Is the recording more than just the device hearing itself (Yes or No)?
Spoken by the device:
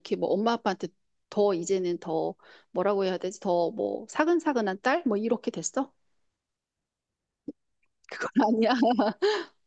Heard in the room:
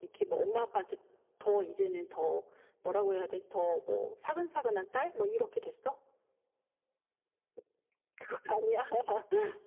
No